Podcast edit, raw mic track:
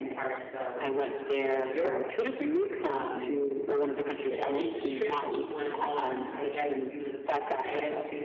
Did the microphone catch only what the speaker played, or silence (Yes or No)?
No